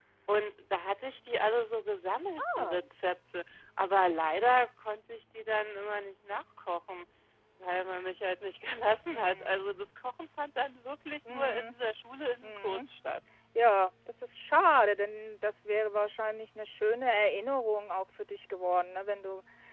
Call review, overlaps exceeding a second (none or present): none